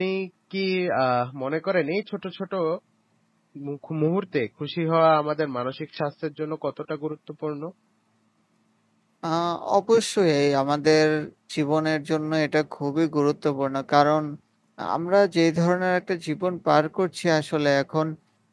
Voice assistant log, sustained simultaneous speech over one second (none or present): none